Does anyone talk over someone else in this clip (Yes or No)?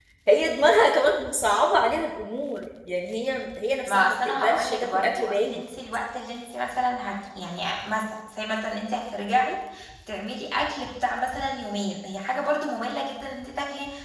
Yes